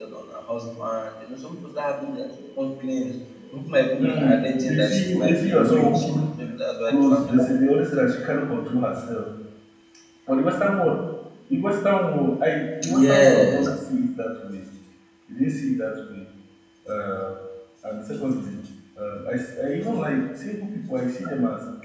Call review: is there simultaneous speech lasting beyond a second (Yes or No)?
Yes